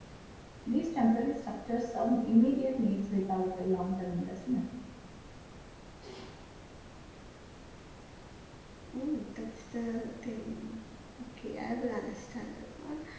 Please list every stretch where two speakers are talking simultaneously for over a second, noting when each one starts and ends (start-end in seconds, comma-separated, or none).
none